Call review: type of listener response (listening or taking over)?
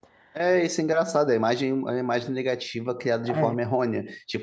listening